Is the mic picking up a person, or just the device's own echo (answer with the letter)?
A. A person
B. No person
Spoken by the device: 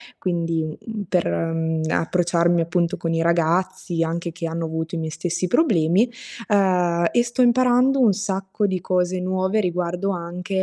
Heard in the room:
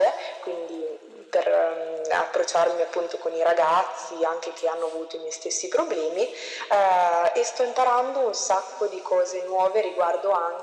B